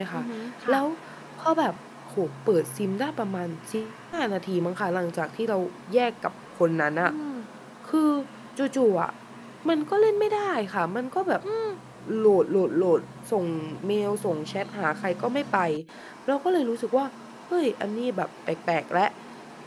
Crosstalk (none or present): none